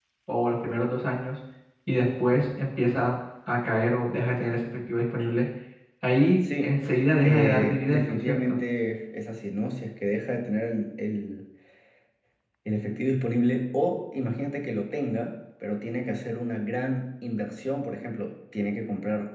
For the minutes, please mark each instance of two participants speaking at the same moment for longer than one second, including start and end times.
7.2-8.6

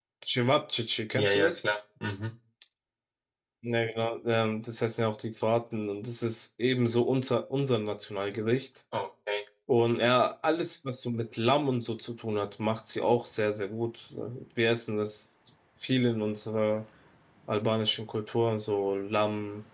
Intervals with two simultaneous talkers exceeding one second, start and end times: none

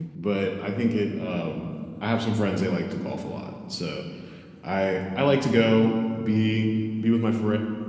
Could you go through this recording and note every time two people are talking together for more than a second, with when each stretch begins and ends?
none

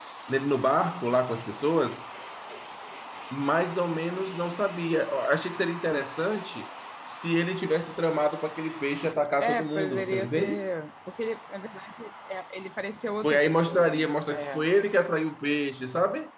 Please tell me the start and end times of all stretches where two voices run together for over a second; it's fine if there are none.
9.4-10.6, 13.2-14.7

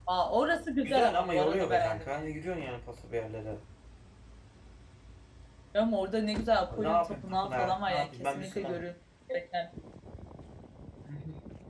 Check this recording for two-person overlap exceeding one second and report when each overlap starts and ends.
0.8-2.4, 6.7-8.8

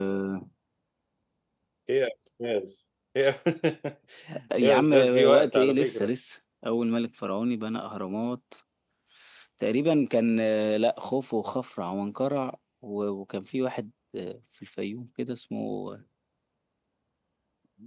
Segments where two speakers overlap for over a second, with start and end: 4.7-6.1

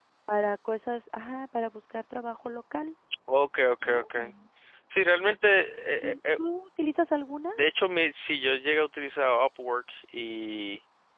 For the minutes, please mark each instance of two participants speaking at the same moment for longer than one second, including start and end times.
none

